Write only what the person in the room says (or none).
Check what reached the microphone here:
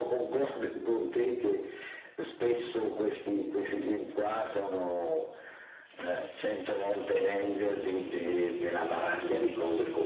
none